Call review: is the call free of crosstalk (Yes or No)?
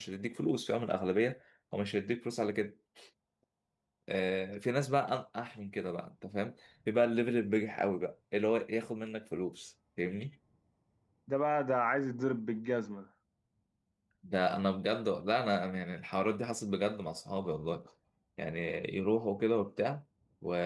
Yes